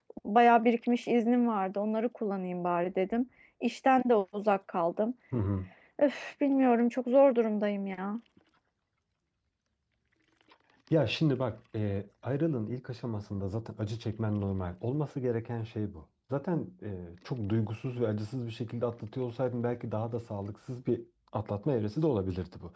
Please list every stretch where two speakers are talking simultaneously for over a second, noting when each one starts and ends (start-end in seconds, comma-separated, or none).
none